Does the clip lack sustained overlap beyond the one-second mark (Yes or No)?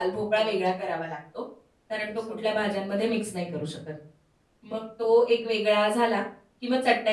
No